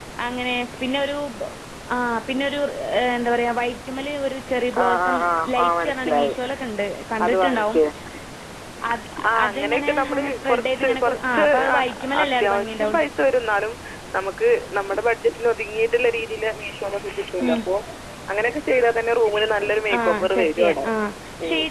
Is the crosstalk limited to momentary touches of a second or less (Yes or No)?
No